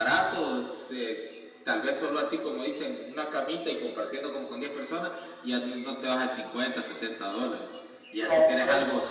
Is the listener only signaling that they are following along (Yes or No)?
Yes